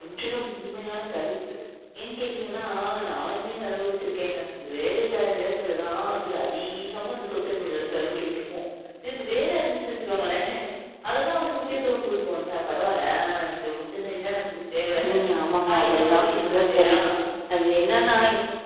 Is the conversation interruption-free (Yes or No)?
No